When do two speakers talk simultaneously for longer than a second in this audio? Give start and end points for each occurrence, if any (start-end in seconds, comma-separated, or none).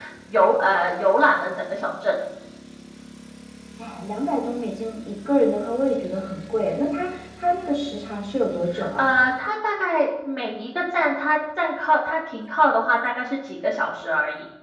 none